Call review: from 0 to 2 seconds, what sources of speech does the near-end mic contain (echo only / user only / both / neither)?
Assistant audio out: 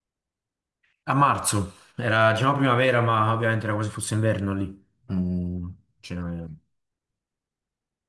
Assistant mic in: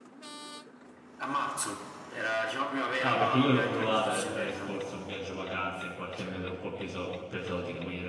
echo only